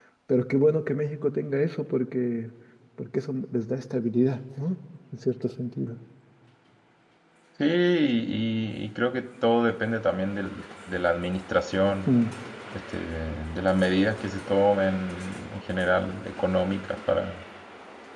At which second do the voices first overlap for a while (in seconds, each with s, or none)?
none